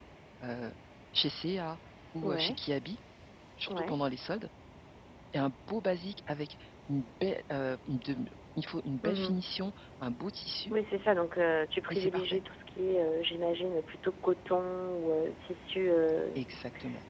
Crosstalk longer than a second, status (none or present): none